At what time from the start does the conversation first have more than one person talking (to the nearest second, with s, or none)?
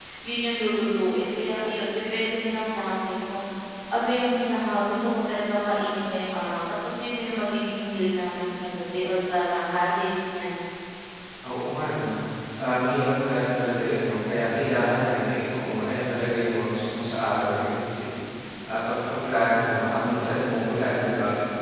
none